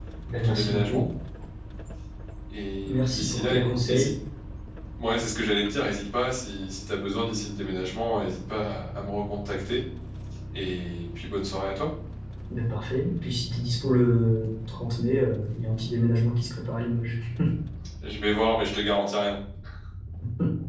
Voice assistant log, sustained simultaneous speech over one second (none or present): present